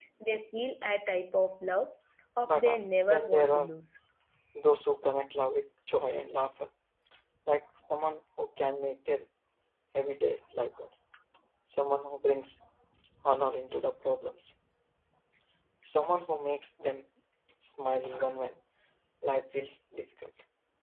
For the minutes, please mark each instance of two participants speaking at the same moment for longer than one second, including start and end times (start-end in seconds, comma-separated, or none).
2.4-3.7